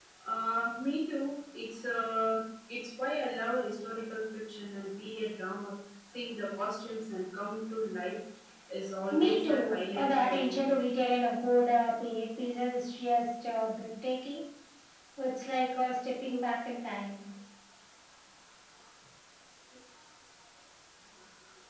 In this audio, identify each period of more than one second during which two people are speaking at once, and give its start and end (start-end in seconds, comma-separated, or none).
9.1-10.7